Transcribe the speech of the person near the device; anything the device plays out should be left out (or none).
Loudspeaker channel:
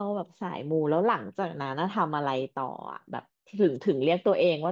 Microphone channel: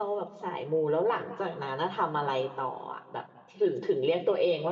none